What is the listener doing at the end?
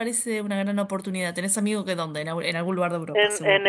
taking over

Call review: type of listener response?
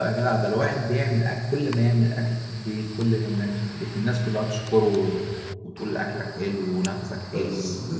taking over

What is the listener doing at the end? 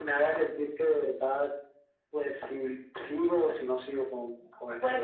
taking over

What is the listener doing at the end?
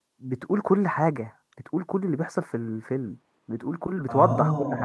taking over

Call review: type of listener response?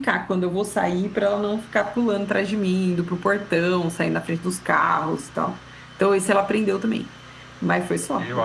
taking over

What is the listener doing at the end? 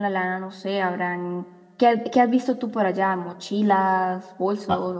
taking over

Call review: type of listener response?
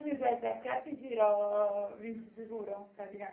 taking over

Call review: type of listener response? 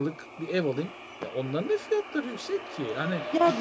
taking over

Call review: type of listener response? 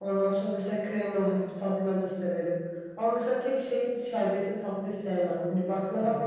listening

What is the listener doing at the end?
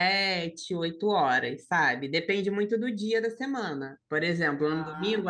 listening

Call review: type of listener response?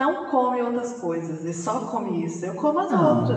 taking over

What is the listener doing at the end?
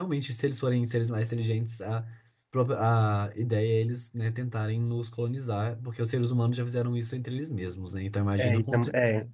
taking over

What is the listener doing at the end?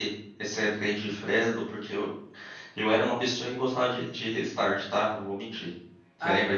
taking over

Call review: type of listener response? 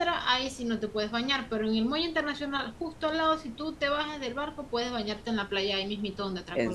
taking over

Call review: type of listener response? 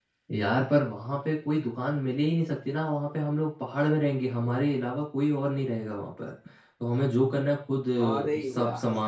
listening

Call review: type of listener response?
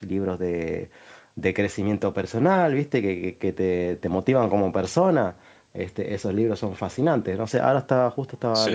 listening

